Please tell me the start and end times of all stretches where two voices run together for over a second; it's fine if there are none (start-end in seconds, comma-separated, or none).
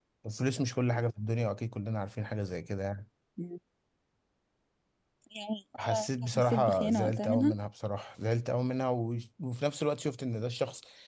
5.9-7.6